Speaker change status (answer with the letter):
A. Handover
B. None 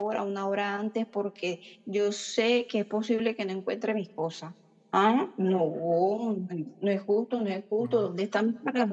B